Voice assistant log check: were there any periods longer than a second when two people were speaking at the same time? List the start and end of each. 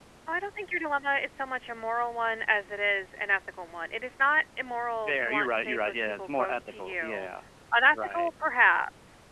5.1-7.2

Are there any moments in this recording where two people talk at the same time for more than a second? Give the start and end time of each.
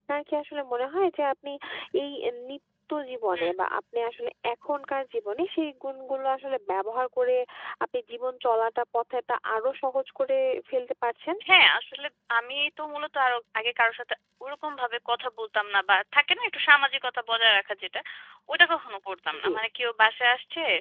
none

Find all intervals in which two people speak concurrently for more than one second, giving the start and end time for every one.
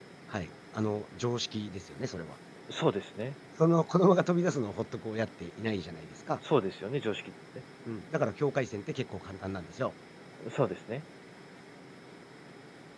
none

